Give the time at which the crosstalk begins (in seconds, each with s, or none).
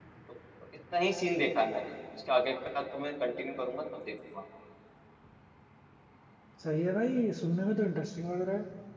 none